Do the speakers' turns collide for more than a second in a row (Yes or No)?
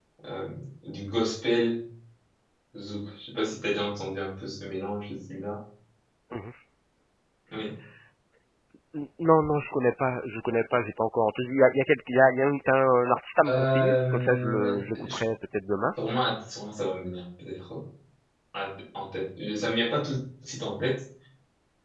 Yes